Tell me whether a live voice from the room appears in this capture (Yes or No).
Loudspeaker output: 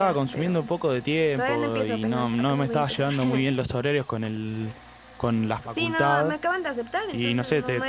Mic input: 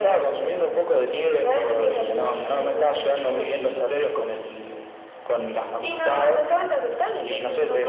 No